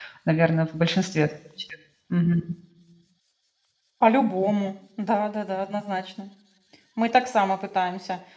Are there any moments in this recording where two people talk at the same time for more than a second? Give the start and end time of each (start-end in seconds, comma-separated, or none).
none